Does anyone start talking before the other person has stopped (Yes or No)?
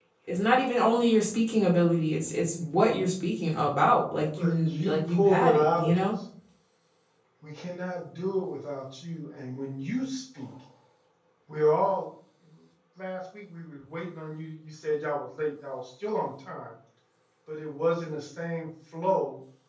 Yes